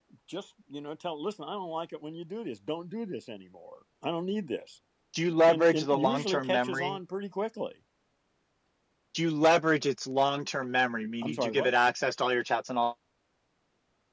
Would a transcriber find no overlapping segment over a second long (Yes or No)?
No